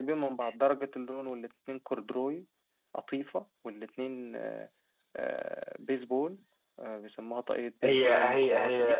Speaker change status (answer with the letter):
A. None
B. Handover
B